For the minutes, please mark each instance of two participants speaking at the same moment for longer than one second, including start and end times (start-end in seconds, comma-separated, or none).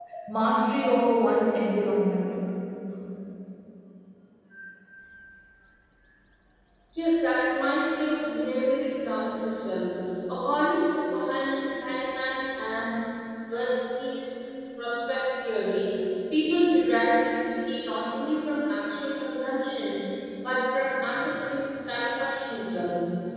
none